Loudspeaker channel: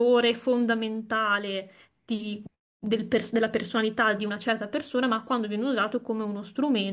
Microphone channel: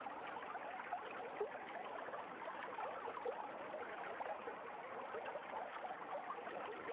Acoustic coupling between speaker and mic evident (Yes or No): No